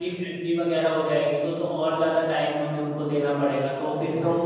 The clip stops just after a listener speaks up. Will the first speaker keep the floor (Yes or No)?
No